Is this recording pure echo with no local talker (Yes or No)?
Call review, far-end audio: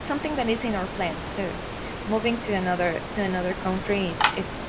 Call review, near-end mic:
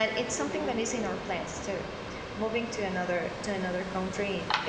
No